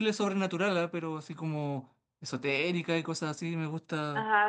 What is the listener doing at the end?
taking over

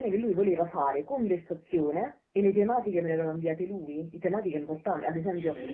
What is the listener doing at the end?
listening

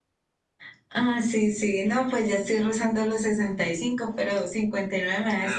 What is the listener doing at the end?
taking over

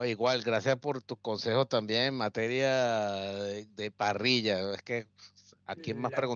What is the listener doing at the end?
listening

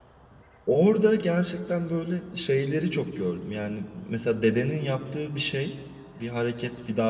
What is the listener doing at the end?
listening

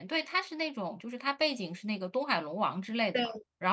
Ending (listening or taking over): listening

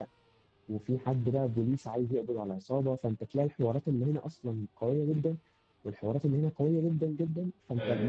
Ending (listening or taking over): listening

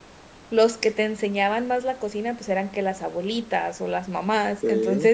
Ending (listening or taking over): listening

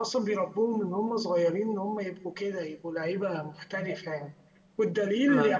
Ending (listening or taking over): listening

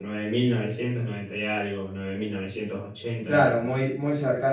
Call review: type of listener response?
taking over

